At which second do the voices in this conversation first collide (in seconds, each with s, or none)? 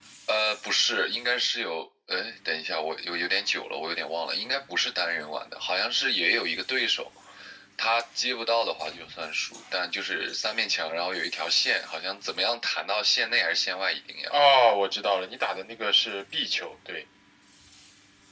none